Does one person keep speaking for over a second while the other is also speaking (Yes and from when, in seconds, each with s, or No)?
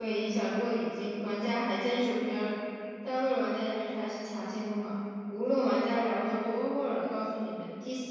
No